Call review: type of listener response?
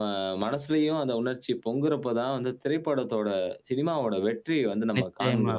taking over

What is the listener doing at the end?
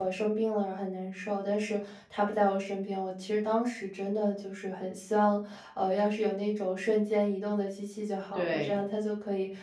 listening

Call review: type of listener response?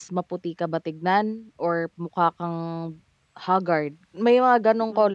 taking over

